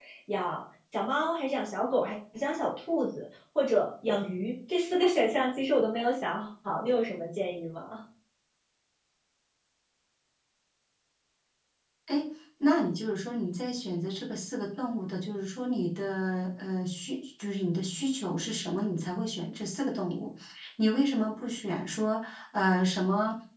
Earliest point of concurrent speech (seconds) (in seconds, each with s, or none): none